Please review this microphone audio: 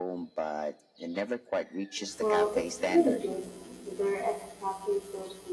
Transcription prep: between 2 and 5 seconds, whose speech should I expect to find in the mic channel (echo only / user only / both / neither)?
both